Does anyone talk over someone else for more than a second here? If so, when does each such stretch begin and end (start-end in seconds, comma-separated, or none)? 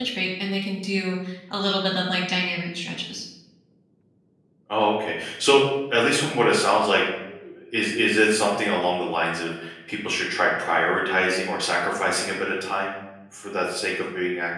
none